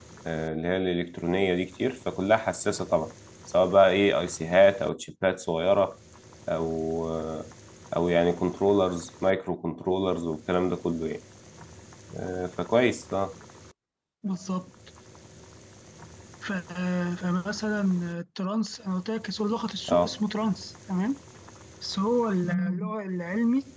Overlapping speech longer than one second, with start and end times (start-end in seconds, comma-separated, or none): none